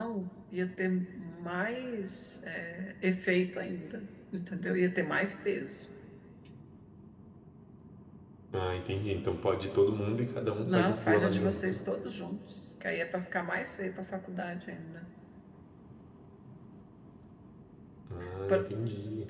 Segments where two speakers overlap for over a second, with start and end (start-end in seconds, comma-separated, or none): 10.6-11.8